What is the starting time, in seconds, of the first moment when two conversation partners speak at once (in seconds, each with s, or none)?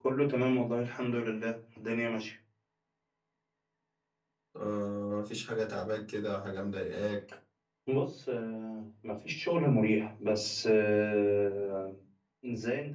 none